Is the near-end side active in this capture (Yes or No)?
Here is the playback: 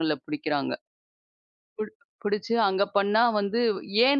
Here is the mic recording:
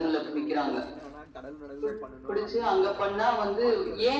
Yes